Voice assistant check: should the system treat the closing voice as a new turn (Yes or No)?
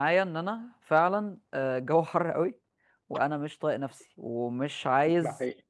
No